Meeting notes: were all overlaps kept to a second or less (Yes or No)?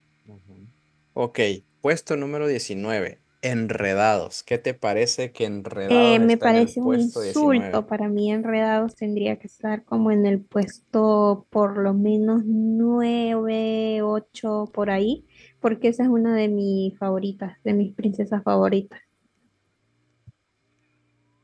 No